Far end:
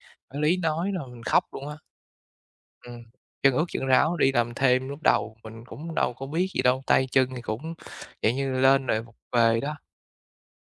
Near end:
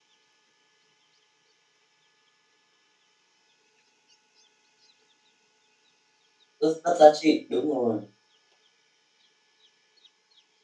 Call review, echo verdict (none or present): none